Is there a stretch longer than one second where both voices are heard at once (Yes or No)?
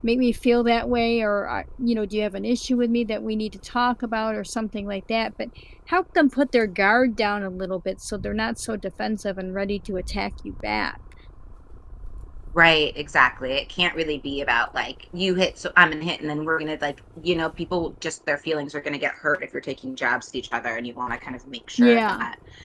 No